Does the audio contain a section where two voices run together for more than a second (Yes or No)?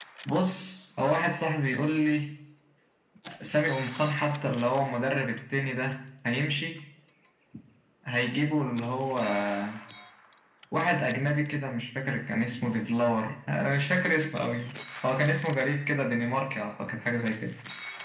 No